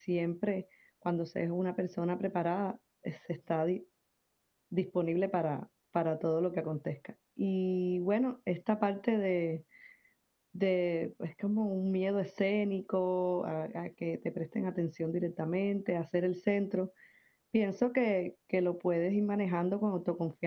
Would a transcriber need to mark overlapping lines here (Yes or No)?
No